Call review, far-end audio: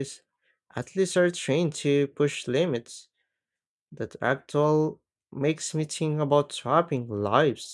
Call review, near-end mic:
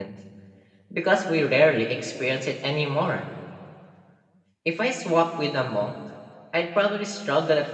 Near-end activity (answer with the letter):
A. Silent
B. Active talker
B